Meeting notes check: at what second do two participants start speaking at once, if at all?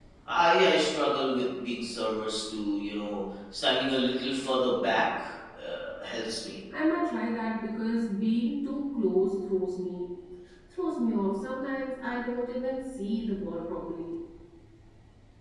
none

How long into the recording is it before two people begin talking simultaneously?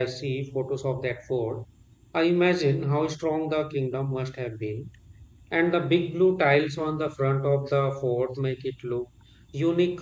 none

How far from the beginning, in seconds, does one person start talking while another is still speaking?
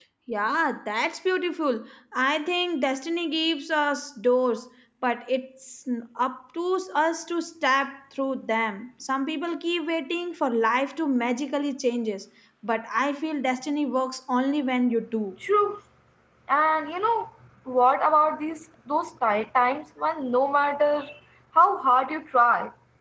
none

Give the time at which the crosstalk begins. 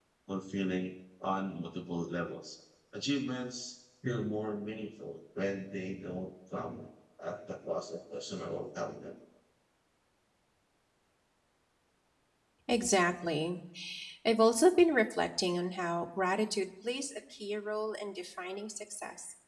none

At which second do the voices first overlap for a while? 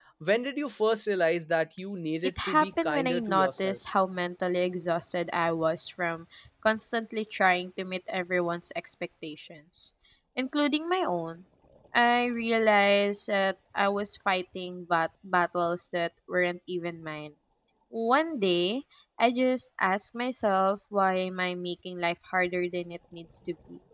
2 s

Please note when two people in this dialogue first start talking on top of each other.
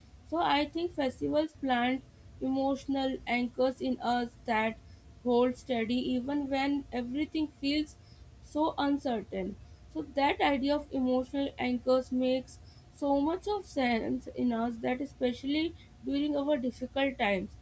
none

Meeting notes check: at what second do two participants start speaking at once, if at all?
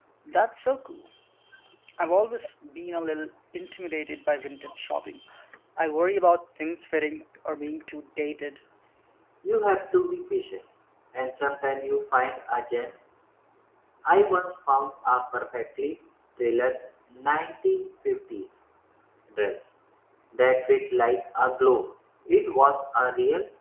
none

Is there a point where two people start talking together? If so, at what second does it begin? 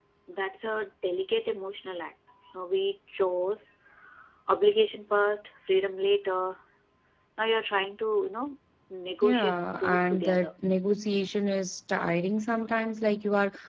9 s

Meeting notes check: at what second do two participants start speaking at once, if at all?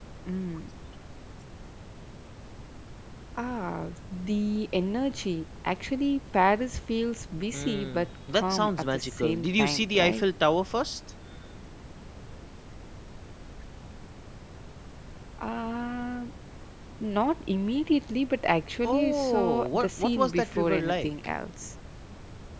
8 s

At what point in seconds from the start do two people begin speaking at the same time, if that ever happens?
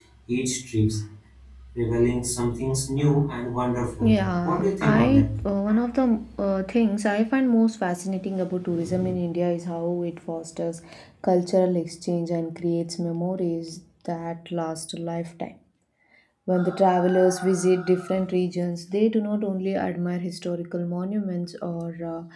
4 s

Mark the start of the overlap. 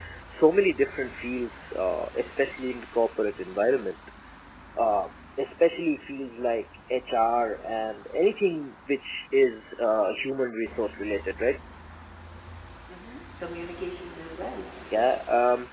none

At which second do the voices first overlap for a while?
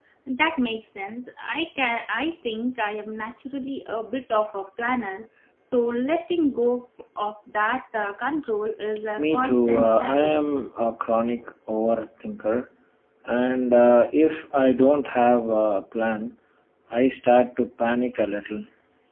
9 s

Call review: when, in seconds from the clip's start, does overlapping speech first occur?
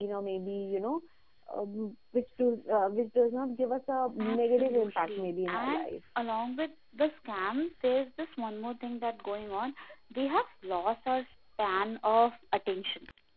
4 s

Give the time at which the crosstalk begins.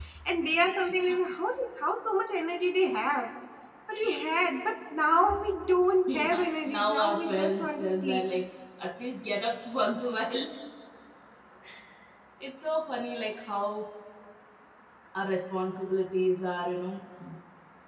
6 s

